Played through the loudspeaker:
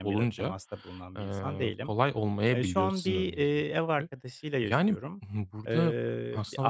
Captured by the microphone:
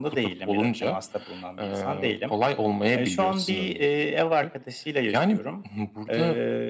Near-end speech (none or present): none